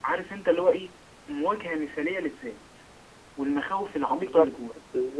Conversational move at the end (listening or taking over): taking over